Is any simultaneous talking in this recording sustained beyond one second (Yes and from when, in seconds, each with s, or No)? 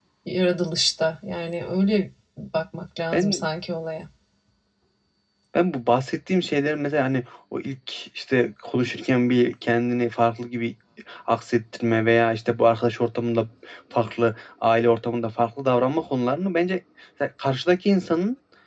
No